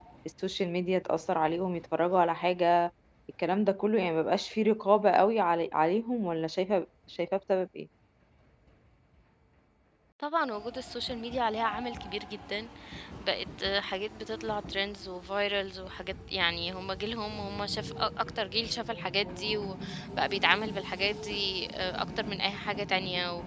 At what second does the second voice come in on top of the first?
none

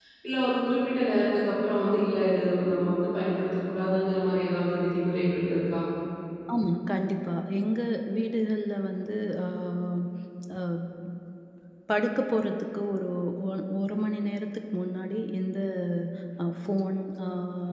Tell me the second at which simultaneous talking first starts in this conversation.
none

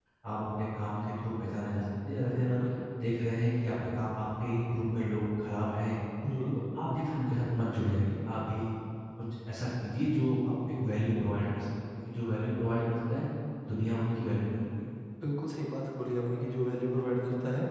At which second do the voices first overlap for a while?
none

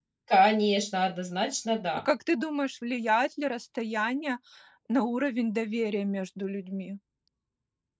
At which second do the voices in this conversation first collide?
none

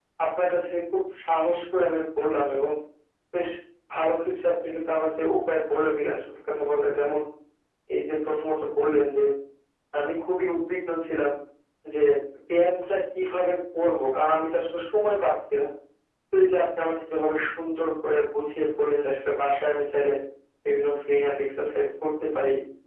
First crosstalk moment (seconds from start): none

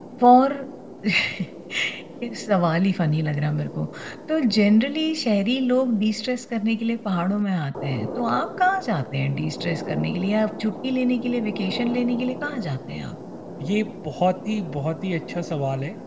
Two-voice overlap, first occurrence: none

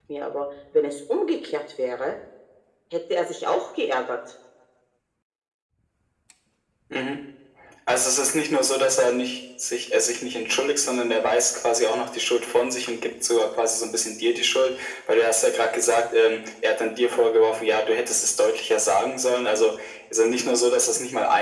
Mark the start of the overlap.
none

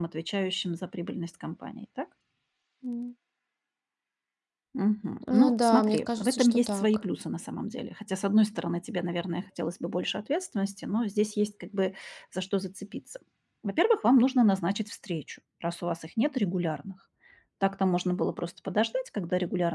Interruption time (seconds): 5.3 s

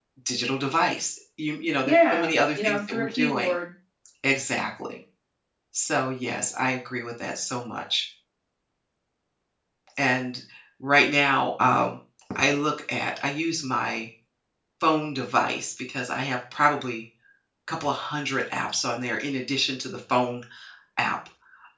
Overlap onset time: 1.9 s

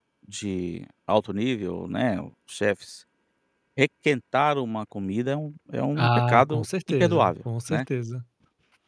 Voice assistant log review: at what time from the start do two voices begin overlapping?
6.0 s

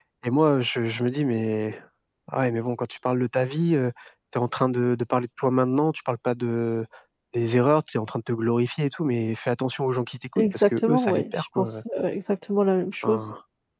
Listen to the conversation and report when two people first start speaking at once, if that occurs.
10.4 s

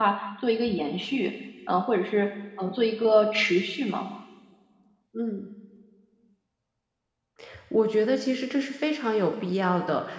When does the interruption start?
none

